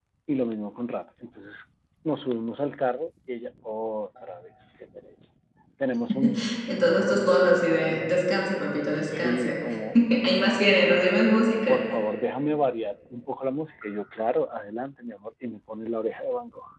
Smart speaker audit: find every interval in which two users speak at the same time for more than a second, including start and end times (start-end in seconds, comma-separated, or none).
none